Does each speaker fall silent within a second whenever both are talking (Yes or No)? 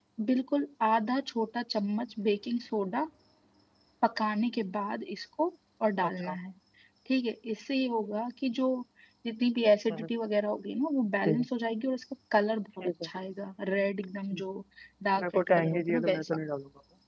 No